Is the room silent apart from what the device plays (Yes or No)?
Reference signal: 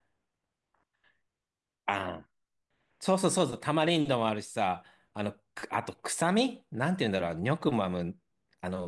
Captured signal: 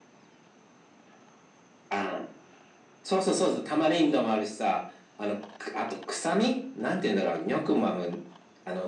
Yes